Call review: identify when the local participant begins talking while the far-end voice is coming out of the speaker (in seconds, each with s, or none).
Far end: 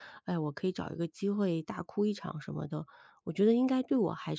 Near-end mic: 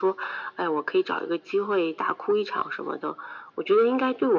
none